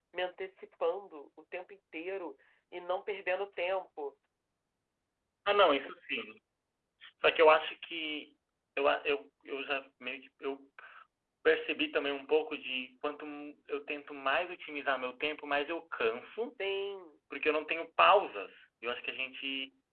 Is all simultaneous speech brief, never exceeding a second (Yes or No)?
Yes